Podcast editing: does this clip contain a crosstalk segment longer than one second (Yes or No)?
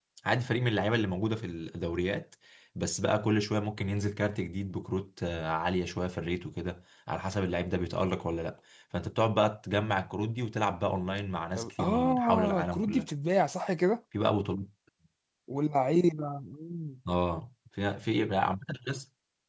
Yes